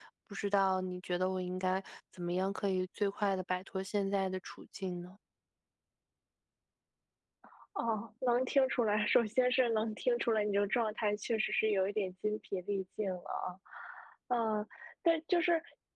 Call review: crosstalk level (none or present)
none